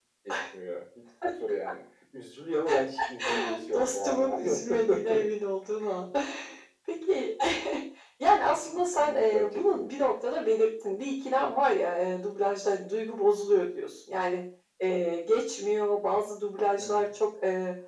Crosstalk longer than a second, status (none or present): present